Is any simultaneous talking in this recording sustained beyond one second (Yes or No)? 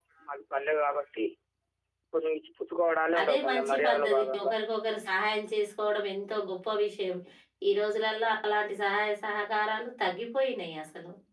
Yes